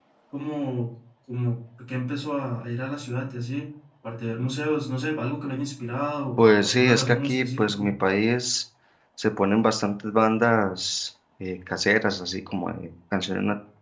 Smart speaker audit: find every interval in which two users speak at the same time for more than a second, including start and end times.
6.4-7.9

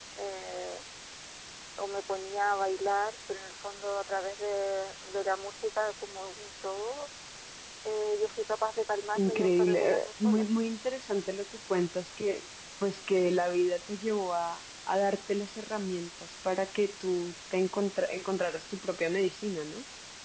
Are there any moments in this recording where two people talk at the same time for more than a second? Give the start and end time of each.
9.2-10.4

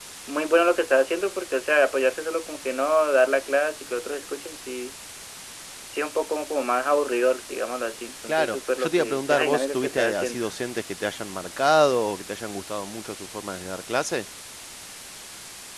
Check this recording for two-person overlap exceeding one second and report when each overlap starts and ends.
8.3-10.4

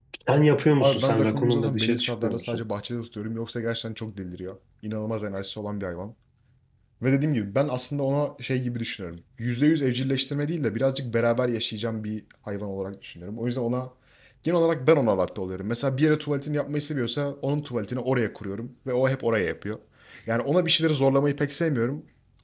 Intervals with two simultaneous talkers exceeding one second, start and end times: 0.8-2.6

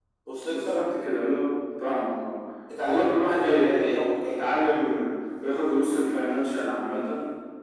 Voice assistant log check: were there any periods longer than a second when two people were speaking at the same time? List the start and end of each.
2.9-4.6

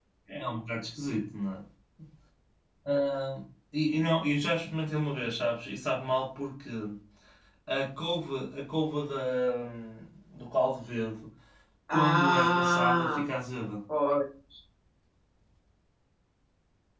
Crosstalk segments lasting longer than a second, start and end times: 11.9-13.3

